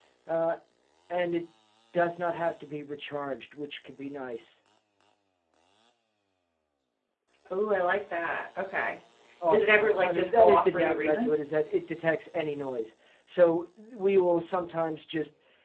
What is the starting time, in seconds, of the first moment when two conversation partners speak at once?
9.5 s

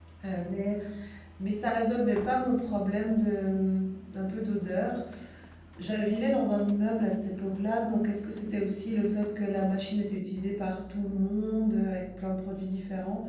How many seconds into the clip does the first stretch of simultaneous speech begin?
none

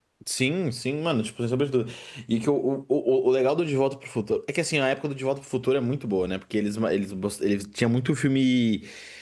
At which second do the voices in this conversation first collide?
none

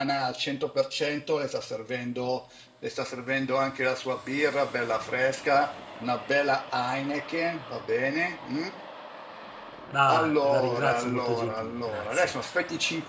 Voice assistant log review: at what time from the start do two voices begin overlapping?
10.1 s

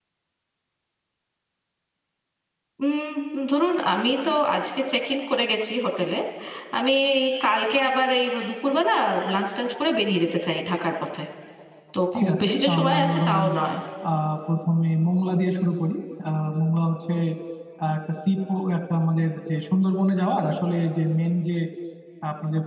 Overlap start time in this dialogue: 12.1 s

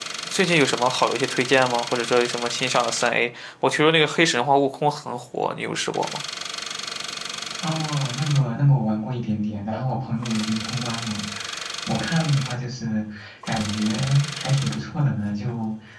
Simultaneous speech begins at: none

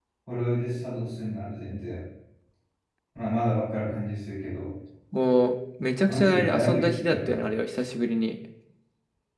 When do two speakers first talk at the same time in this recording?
6.1 s

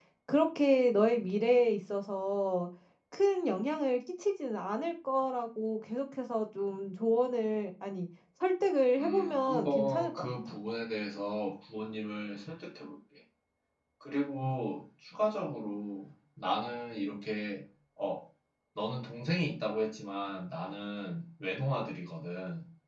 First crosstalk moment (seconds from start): 9.0 s

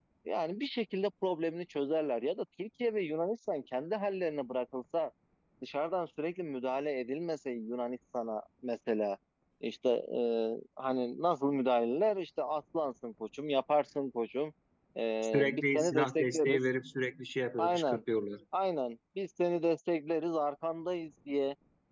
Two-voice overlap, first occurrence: 15.2 s

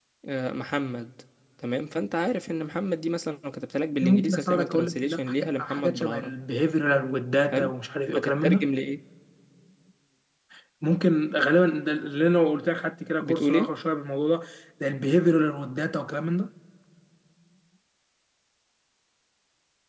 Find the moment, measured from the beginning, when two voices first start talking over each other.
4.0 s

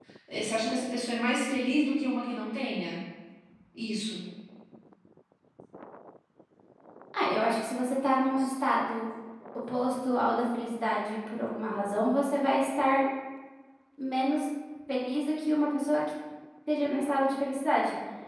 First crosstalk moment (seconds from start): none

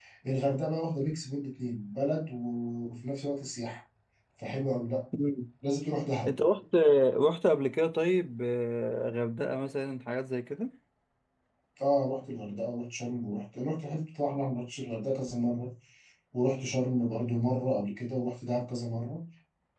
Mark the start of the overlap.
none

